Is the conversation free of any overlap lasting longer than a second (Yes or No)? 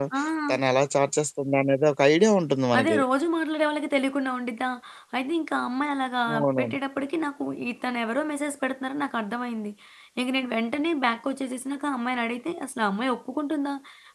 Yes